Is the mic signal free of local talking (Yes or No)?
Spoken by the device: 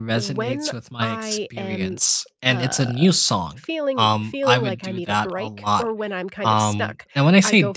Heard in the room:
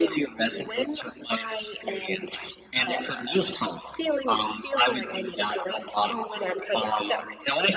Yes